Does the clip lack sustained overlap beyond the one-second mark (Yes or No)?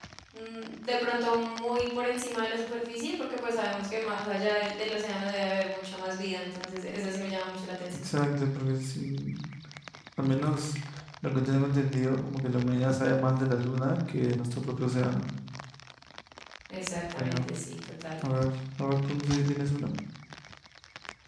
Yes